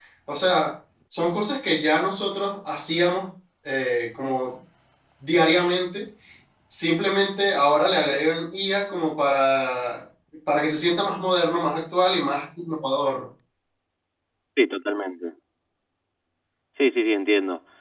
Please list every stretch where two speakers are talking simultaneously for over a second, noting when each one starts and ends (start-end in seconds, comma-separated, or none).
none